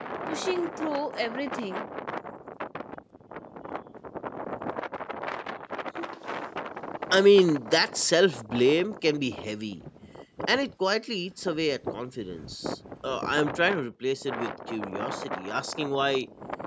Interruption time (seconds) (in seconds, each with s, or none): none